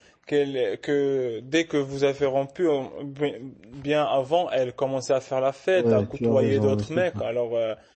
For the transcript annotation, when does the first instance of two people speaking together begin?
5.8 s

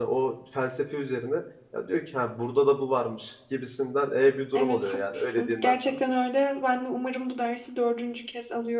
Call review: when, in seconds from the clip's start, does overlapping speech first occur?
4.5 s

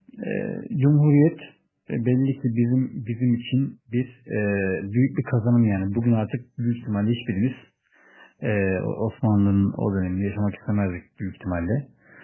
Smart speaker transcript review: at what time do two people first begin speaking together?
none

